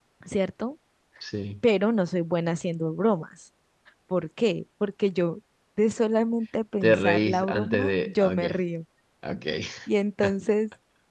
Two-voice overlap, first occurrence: 6.8 s

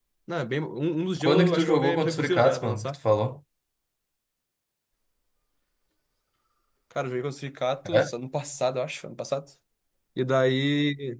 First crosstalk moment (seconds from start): 1.2 s

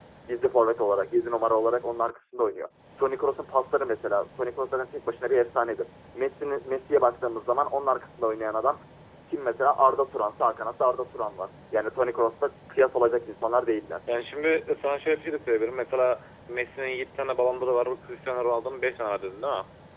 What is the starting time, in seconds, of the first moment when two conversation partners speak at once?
none

